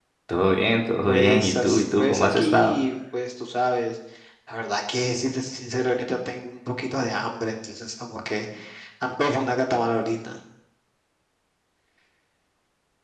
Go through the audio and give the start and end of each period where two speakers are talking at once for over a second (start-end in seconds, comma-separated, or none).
1.1-2.8